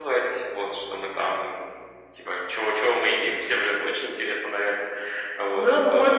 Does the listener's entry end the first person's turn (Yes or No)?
Yes